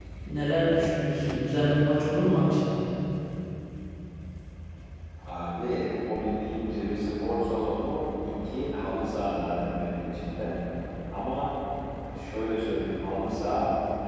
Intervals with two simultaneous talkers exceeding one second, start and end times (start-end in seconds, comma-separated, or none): none